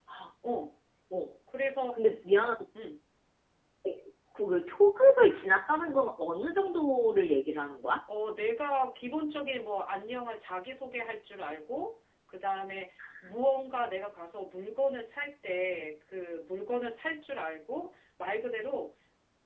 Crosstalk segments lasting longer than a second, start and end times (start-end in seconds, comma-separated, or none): none